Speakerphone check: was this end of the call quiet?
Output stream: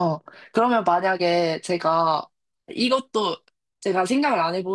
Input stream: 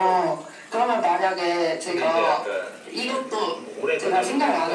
No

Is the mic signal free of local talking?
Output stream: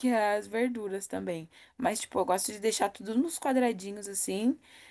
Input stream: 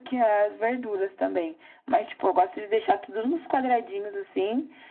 Yes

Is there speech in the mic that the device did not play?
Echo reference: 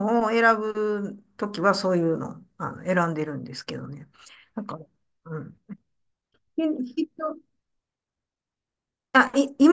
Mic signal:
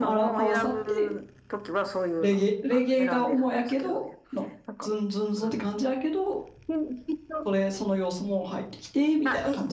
Yes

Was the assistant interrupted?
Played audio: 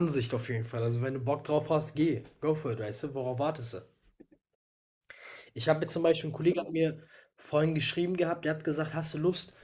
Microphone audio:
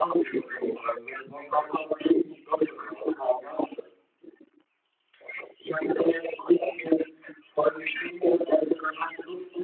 No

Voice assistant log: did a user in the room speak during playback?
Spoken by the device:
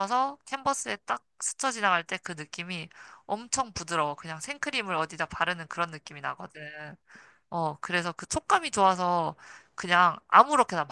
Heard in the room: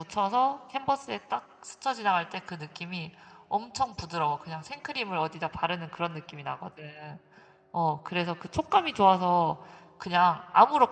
No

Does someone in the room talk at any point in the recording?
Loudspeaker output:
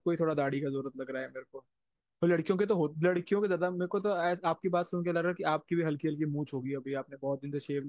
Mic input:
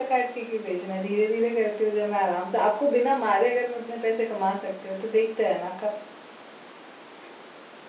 Yes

